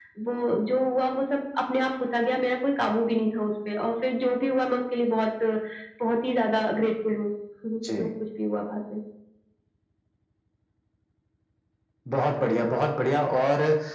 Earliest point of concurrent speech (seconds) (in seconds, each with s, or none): none